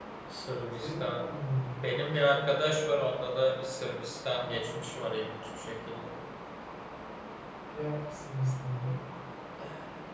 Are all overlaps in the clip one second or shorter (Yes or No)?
Yes